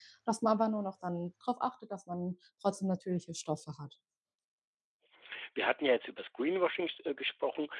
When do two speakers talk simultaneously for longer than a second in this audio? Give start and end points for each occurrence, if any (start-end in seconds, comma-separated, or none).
none